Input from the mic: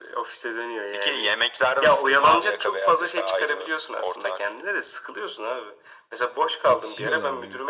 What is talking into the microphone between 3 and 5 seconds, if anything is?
echo only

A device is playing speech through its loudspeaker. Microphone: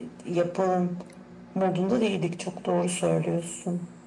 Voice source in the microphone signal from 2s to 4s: echo only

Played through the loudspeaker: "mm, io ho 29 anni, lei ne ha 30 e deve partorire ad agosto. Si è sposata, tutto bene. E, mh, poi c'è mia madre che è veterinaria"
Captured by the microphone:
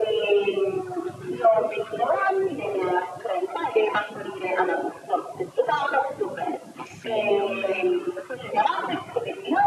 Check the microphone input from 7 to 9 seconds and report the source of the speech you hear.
both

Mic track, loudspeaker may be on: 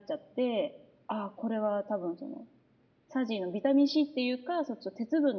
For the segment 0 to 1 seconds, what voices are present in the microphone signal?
echo only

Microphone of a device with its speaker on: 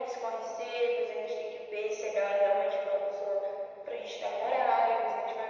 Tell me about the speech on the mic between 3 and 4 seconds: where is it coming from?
echo only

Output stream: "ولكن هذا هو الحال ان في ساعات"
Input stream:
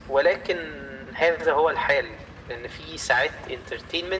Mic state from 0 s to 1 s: echo only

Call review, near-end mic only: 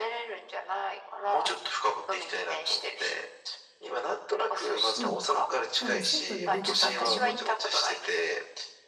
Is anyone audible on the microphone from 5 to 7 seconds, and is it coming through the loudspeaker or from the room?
both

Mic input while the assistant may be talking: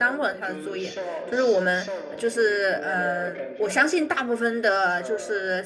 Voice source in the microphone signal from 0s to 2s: both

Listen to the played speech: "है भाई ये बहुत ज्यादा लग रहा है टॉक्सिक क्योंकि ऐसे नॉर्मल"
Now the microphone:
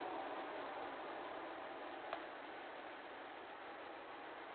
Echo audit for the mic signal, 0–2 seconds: neither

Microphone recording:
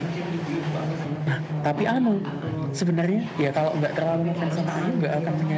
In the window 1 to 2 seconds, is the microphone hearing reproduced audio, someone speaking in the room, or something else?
both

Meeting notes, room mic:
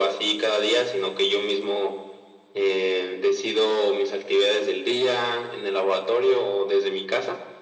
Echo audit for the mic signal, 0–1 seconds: echo only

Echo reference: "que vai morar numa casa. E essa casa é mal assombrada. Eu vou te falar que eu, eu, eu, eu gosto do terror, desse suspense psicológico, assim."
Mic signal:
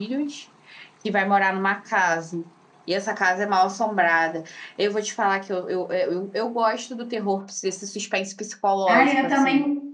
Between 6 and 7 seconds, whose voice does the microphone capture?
echo only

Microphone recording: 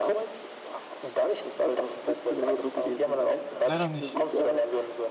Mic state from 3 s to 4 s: both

